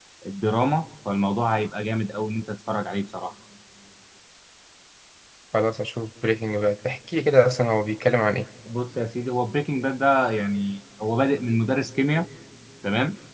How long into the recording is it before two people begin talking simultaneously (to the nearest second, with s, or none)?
none